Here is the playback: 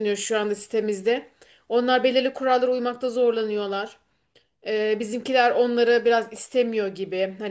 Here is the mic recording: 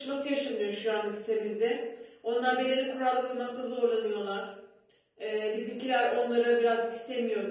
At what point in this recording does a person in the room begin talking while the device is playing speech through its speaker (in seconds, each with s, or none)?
none